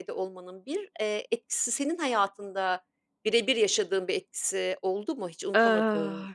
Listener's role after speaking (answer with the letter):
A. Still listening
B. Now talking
B